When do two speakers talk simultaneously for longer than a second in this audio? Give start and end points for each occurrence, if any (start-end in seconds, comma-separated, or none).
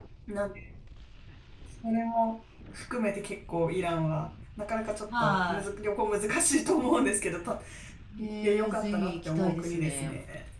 8.2-10.1